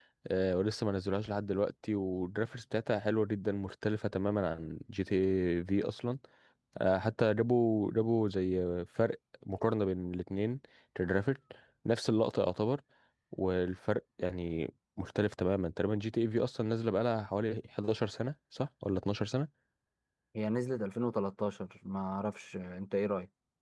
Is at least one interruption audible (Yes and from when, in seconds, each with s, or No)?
No